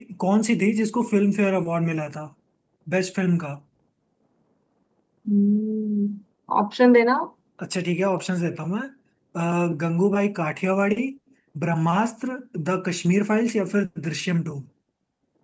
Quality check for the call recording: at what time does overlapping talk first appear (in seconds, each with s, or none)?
none